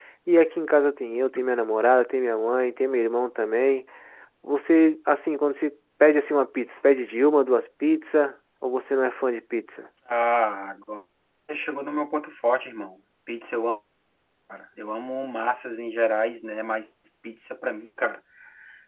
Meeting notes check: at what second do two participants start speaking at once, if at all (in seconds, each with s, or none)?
none